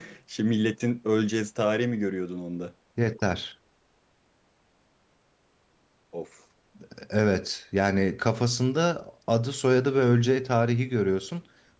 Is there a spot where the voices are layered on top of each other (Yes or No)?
No